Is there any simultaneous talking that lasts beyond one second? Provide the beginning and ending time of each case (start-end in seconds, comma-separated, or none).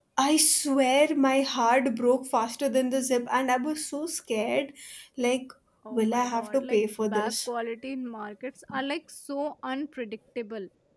5.9-7.3